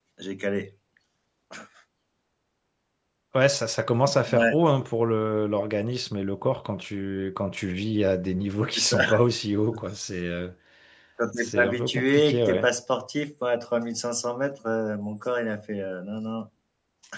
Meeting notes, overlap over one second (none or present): present